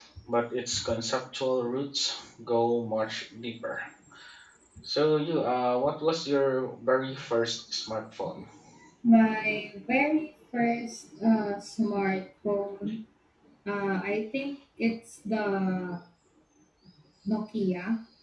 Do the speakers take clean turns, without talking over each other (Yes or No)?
Yes